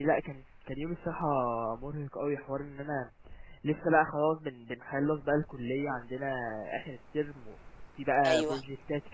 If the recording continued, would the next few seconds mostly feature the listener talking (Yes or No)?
No